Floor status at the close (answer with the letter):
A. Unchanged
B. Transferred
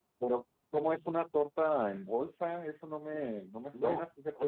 B